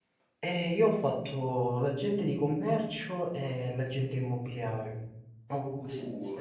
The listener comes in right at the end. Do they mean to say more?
Yes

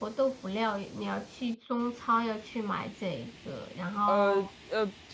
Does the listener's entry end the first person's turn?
Yes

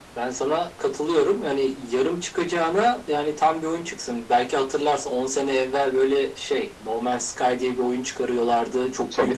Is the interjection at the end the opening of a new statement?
No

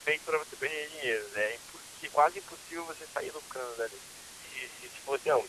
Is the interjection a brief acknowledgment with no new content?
Yes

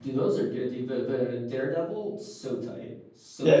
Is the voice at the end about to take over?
Yes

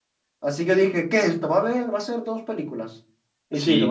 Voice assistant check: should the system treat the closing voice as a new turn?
Yes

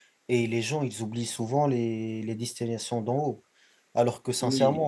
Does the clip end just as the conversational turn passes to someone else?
No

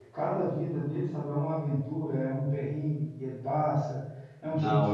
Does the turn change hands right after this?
No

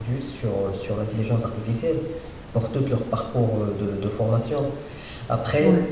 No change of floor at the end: Yes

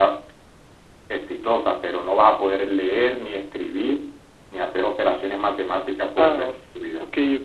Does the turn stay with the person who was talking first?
No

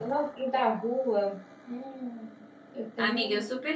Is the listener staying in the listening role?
No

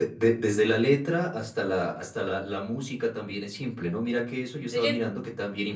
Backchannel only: Yes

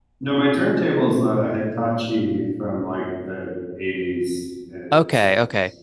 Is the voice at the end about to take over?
Yes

